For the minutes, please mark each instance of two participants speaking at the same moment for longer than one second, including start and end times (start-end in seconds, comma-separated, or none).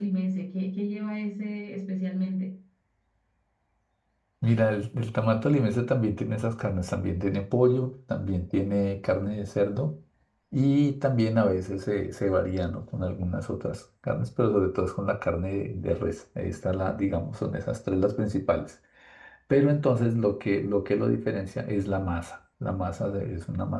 none